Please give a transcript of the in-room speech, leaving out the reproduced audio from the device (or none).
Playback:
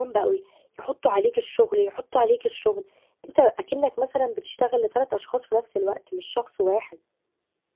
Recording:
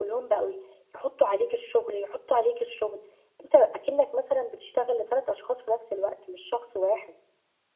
none